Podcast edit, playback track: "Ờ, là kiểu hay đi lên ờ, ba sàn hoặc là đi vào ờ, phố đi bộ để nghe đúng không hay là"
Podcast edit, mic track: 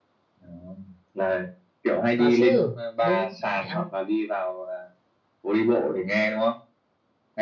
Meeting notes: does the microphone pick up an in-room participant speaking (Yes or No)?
Yes